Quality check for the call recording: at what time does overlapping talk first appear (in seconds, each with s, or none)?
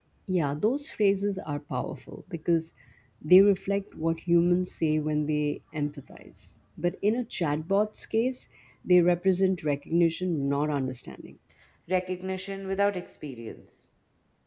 none